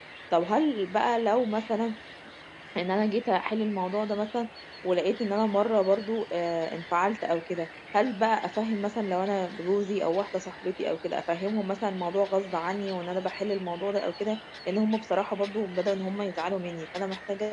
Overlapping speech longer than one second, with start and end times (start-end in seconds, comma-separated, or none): none